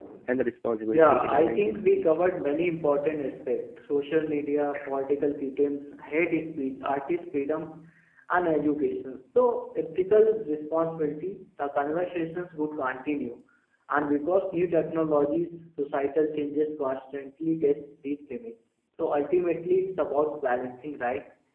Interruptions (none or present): present